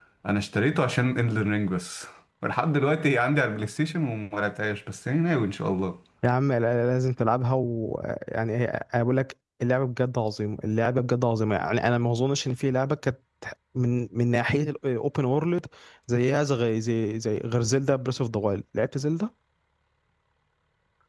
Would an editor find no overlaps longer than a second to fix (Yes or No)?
Yes